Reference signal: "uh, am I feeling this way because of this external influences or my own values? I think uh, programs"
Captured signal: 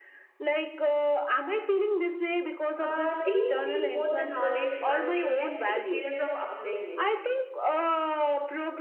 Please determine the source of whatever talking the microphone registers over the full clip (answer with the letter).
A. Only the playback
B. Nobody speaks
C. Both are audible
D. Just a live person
C